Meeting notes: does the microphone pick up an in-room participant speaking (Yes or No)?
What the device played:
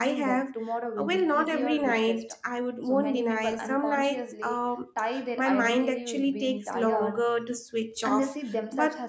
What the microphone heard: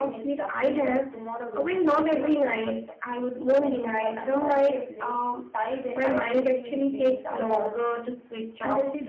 No